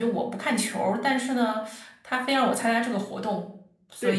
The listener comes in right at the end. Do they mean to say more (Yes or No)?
Yes